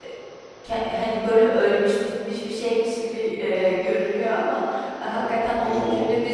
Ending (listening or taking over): listening